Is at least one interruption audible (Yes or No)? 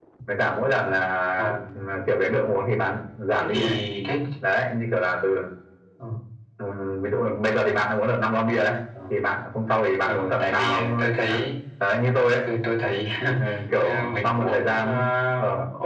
Yes